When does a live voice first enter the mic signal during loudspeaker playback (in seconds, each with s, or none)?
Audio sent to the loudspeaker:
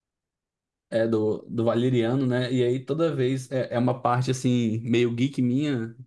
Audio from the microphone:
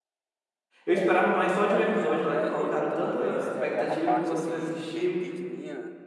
0.8 s